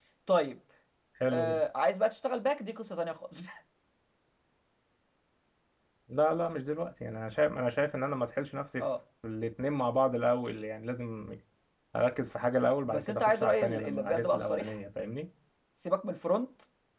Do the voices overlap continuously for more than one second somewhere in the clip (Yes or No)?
Yes